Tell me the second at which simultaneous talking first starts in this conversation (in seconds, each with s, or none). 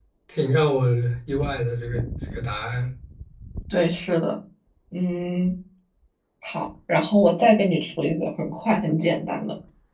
none